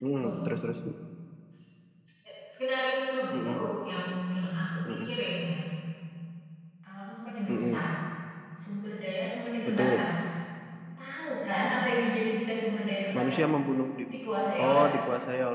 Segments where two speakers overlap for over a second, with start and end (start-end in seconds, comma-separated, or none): none